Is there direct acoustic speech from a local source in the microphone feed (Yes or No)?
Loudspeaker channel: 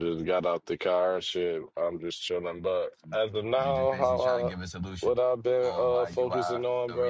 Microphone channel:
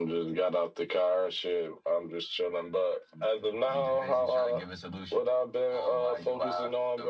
No